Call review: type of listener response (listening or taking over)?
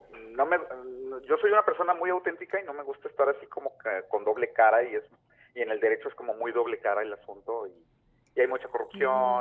listening